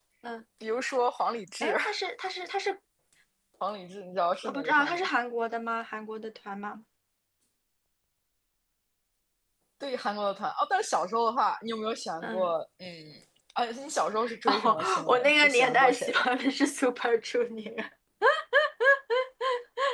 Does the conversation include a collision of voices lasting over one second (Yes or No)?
Yes